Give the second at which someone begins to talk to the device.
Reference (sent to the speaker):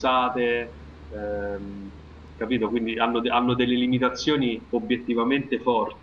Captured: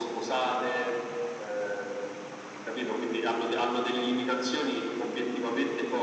none

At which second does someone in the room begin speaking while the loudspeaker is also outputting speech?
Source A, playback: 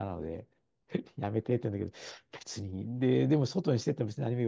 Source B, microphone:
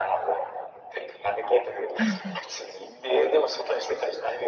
2 s

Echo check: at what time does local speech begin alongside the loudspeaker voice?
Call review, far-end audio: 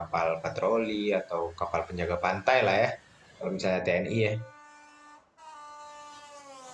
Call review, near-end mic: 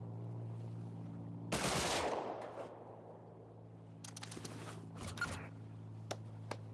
none

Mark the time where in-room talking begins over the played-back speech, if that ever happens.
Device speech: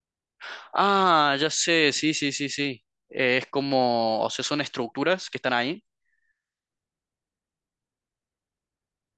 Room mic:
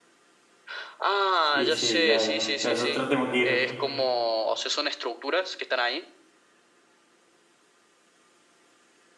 2 s

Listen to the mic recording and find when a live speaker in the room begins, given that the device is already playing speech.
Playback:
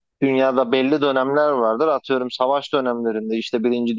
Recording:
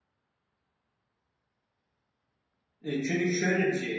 3 s

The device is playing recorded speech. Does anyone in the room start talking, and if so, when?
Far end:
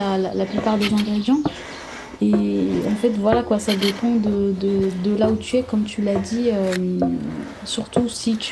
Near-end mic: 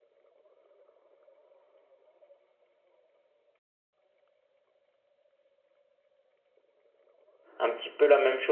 8 s

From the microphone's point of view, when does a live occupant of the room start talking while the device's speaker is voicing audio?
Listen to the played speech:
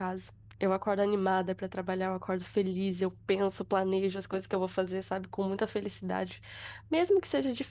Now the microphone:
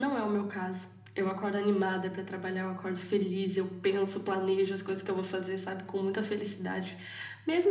none

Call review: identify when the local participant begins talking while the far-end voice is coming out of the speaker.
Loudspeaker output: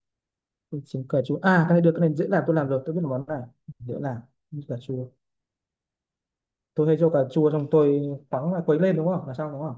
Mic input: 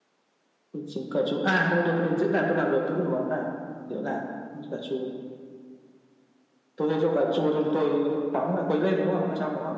none

